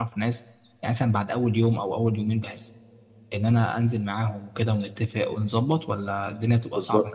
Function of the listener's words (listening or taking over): taking over